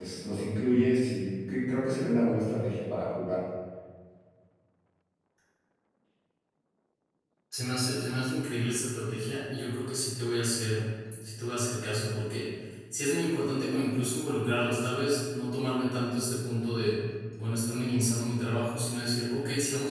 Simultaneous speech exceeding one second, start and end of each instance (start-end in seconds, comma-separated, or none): none